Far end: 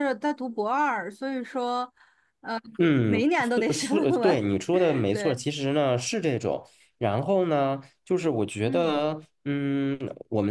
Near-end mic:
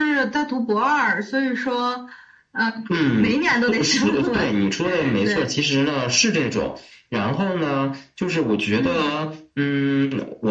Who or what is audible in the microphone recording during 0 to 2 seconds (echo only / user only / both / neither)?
echo only